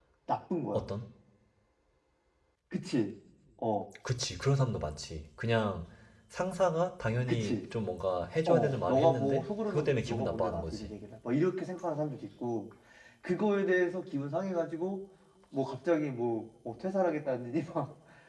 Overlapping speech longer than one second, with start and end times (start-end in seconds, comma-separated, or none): 8.5-10.9